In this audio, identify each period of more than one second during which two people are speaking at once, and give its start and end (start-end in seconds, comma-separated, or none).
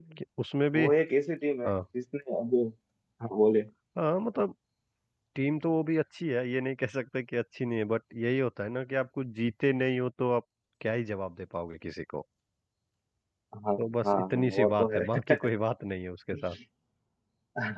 13.8-15.0